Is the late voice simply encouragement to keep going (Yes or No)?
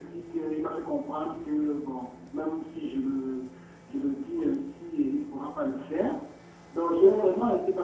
Yes